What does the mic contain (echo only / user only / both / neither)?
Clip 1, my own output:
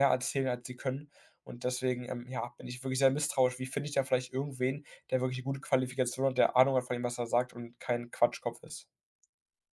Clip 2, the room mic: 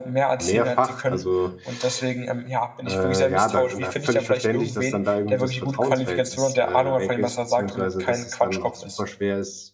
both